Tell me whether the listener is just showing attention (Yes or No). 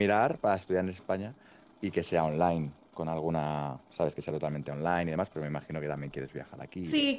No